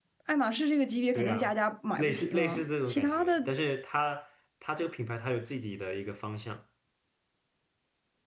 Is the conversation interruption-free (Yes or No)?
No